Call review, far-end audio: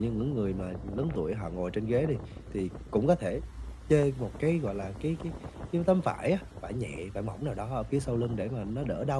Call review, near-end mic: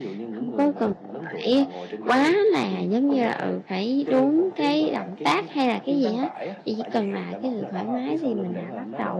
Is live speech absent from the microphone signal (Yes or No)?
No